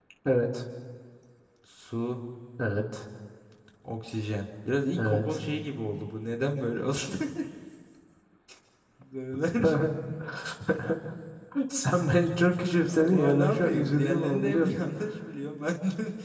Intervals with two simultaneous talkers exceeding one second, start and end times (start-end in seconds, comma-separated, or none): 12.9-14.8